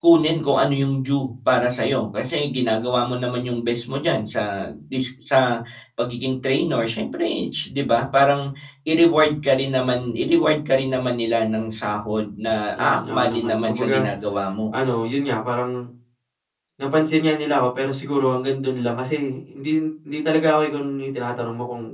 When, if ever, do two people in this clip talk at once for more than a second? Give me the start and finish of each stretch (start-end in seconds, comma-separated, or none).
12.8-14.0